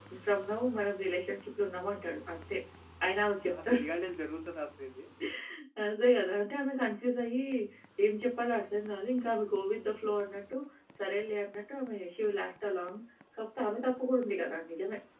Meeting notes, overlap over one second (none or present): none